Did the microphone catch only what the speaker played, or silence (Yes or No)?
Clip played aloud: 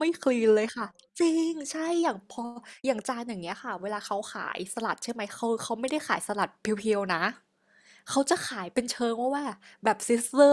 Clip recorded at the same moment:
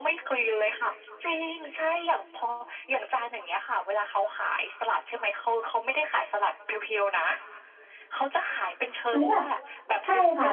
No